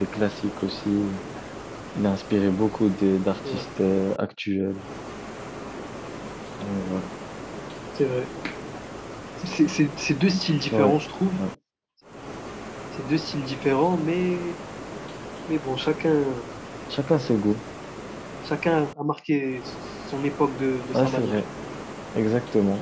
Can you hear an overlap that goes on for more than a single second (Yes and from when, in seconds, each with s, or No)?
No